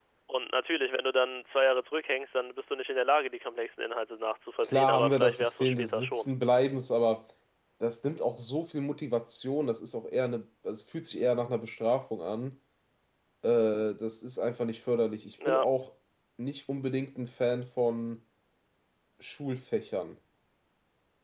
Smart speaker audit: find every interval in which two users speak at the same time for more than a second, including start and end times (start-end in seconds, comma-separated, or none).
4.6-6.3